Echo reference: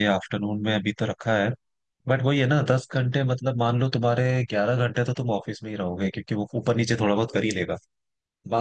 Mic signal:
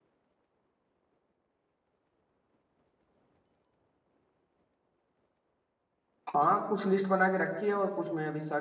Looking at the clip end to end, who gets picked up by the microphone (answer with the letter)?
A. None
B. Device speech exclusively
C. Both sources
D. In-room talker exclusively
D